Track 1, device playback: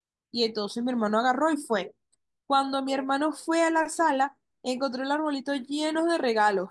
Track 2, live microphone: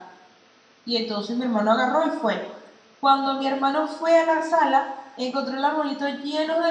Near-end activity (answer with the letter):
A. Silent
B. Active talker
A